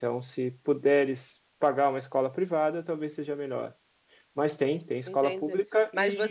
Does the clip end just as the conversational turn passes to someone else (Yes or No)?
Yes